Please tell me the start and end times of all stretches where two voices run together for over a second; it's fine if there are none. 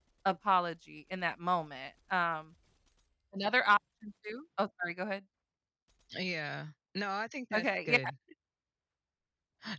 none

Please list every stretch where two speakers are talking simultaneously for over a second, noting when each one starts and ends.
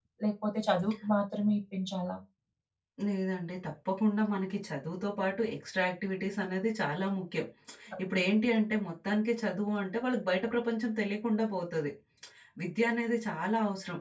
none

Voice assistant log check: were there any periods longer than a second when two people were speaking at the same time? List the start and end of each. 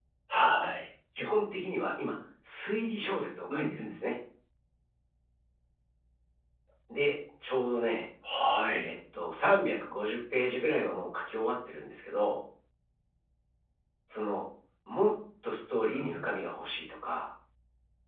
none

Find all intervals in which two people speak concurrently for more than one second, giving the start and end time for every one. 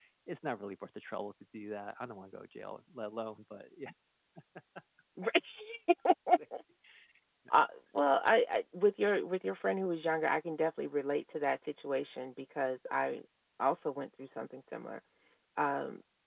none

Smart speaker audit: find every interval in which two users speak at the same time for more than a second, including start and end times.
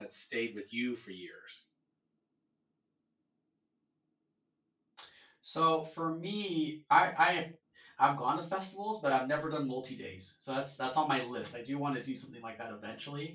none

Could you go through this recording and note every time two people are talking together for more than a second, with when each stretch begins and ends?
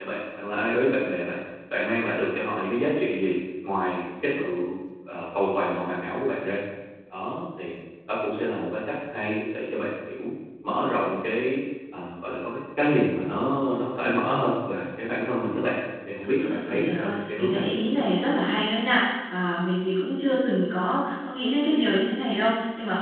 16.4-17.6

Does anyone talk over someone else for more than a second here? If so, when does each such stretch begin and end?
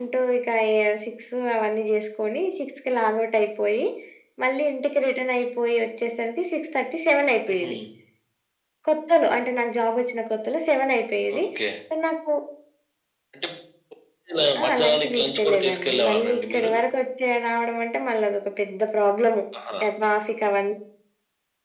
14.6-16.7

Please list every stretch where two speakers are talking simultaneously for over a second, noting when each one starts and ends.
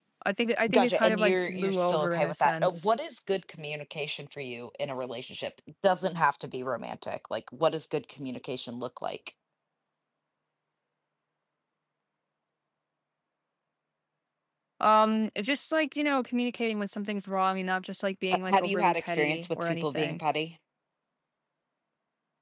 0.7-2.9, 18.5-20.2

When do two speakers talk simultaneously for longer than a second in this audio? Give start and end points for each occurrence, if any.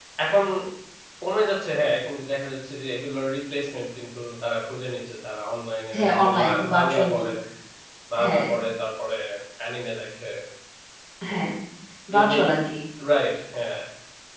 6.0-7.2

